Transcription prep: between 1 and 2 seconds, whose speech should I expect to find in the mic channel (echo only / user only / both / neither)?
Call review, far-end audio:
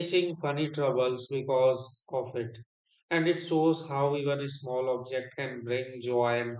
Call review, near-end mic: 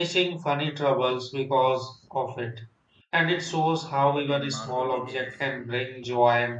echo only